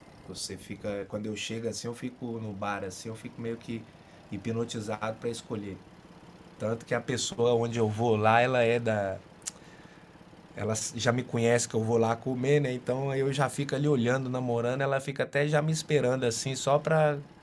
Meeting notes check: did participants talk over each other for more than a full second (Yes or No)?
No